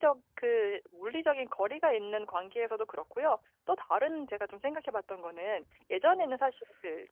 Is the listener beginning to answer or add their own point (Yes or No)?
No